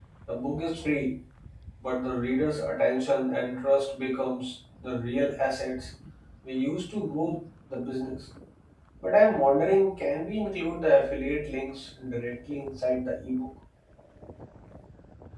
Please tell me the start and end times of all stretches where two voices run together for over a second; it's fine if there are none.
none

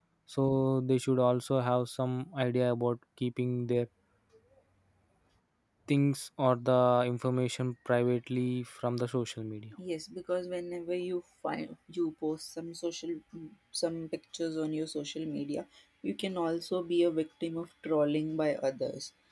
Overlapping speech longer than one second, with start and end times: none

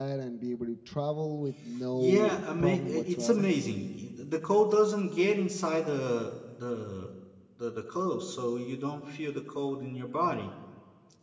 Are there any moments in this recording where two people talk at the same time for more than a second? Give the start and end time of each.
1.9-3.5

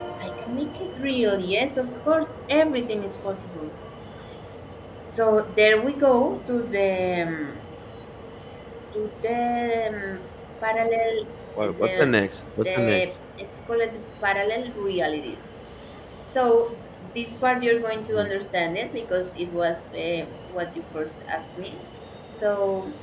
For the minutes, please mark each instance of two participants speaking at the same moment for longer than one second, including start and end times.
none

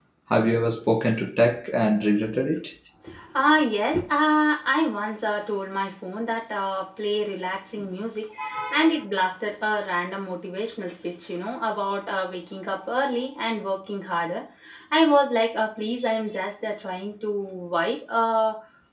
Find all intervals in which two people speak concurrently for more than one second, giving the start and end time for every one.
none

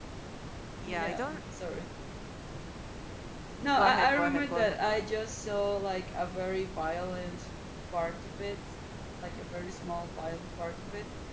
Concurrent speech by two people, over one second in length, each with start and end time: 3.8-5.1

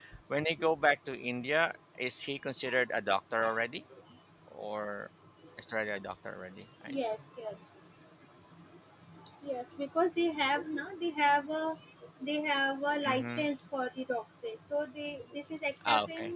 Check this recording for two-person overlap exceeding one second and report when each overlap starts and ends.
none

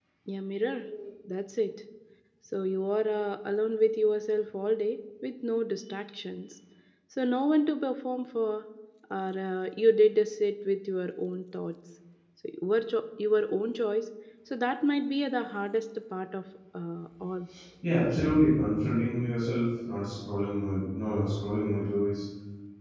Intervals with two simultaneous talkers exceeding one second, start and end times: none

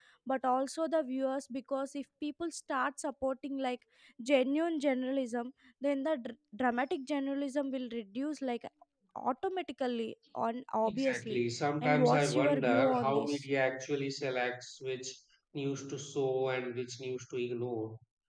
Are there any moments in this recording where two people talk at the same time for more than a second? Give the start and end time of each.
11.8-13.4

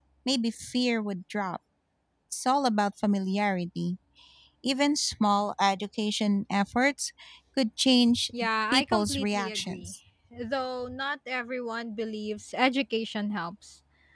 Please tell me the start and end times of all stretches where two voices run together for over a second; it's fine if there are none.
8.7-9.9

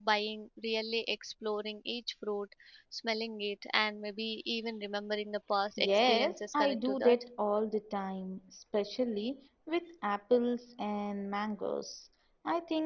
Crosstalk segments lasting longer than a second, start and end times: 5.8-7.2

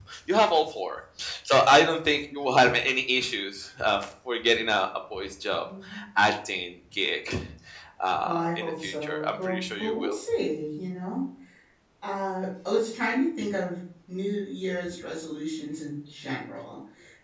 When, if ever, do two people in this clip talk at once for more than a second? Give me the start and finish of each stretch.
8.2-10.2

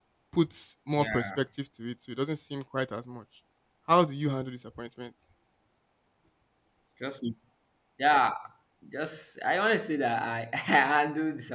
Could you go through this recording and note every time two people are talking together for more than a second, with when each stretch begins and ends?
none

